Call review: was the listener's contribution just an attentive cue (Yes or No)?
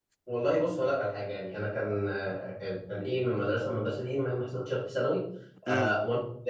Yes